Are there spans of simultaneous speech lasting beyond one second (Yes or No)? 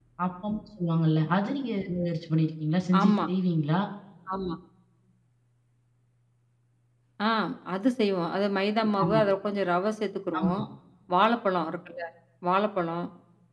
No